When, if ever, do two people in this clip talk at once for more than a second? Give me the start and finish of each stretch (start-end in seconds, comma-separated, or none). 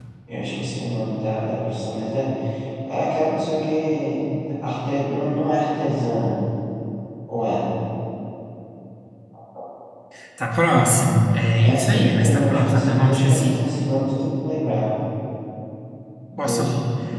11.6-13.7